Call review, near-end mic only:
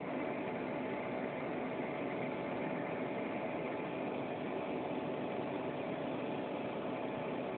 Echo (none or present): none